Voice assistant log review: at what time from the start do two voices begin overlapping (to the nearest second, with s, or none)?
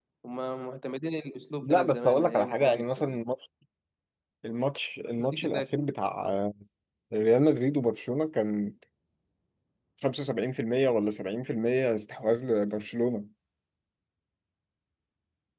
2 s